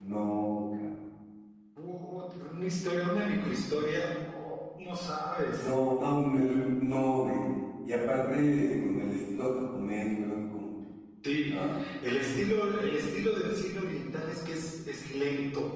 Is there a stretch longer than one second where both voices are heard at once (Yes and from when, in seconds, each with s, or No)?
No